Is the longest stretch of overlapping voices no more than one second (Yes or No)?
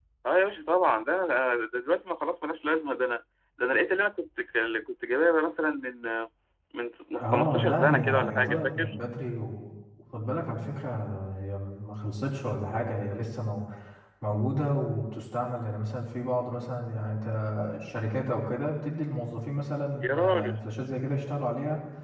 No